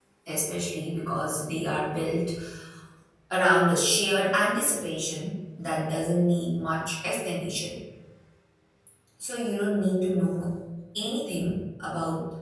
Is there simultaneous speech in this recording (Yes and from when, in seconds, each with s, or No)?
No